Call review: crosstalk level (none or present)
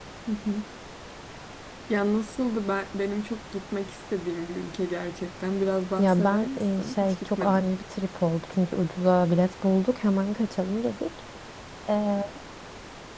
present